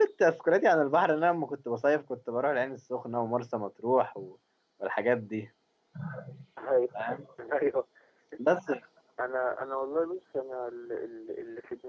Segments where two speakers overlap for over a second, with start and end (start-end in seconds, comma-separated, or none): none